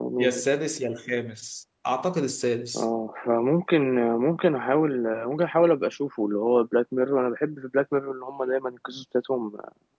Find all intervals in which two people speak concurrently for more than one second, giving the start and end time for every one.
none

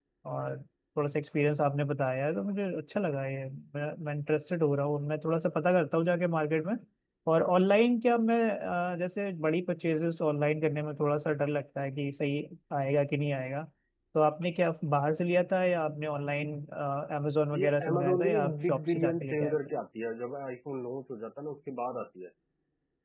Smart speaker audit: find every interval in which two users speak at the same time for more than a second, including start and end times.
17.5-19.6

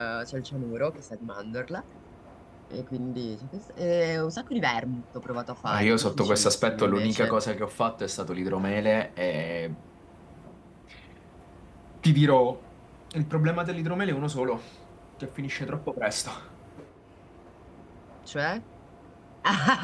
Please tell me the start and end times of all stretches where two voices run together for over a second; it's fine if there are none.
5.6-7.4

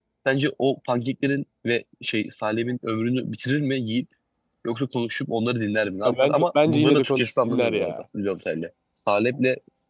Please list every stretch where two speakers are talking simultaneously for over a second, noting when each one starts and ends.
6.1-7.9

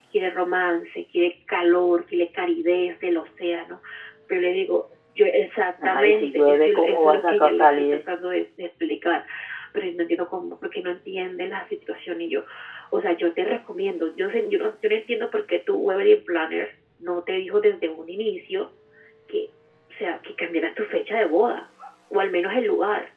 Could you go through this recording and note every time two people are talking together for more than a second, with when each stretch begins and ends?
5.8-8.0

